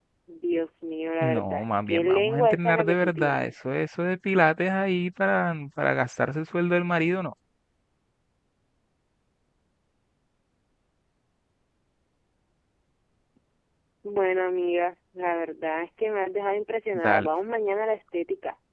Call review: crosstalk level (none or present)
present